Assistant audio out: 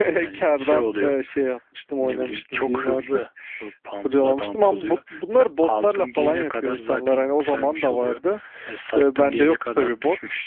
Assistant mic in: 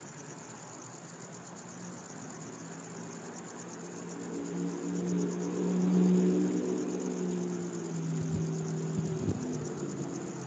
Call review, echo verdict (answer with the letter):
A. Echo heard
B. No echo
B